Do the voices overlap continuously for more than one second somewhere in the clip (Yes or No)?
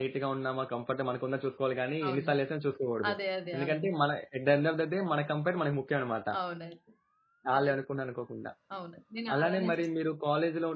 No